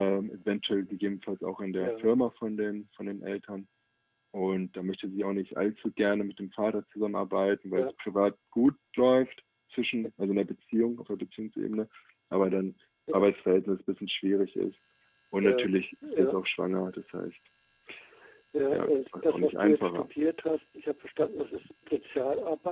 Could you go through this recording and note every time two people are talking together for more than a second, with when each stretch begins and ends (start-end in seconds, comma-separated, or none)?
18.7-20.1